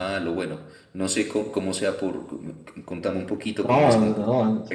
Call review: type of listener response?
taking over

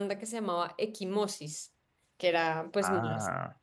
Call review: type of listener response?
listening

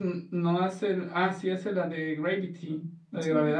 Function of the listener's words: taking over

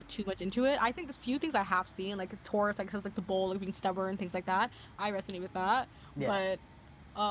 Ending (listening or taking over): listening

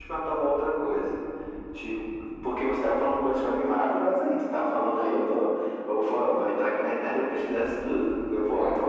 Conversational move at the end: listening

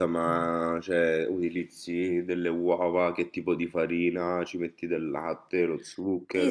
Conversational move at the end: taking over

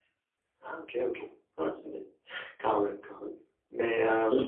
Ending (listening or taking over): taking over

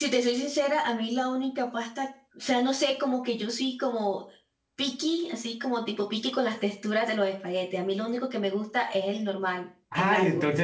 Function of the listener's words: taking over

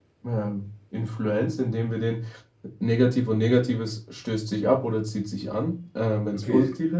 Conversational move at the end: listening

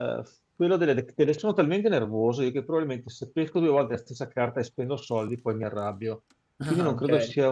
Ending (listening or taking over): listening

